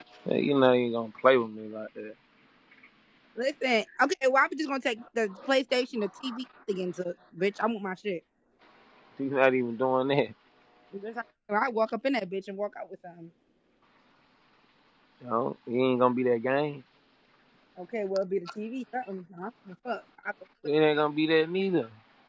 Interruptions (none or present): none